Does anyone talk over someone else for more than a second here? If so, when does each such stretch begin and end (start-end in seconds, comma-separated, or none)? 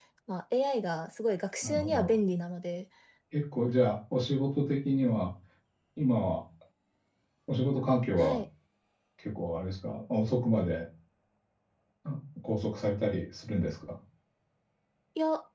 none